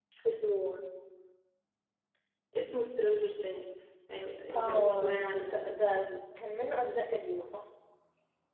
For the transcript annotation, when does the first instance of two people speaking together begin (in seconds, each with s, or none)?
4.5 s